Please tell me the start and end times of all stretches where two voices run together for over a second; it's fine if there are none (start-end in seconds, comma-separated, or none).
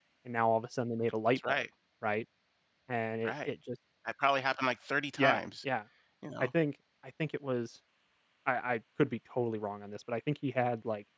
none